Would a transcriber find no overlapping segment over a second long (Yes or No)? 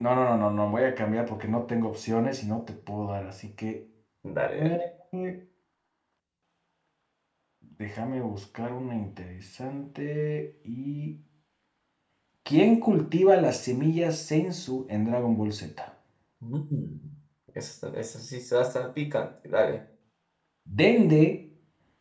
Yes